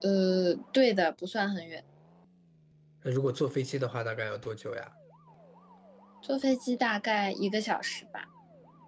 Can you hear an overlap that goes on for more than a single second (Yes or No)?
No